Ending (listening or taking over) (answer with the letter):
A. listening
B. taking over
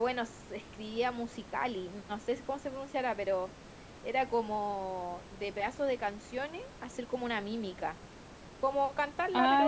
B